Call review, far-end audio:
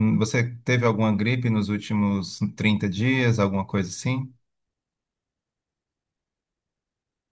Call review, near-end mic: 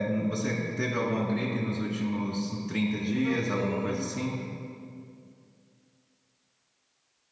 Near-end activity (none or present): present